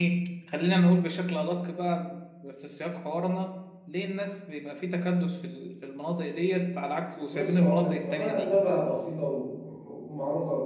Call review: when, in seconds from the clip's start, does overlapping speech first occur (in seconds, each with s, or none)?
7.3 s